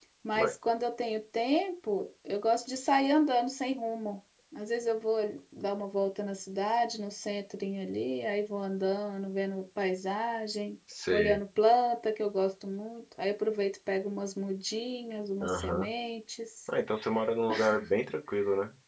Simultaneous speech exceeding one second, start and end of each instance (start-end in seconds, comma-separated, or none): none